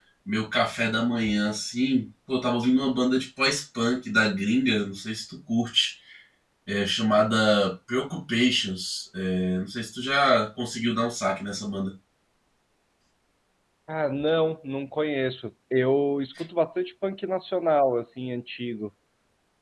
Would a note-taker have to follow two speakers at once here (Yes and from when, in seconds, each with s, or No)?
No